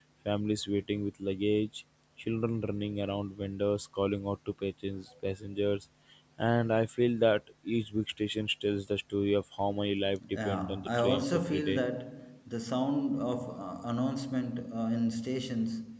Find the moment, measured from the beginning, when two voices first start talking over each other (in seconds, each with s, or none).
10.4 s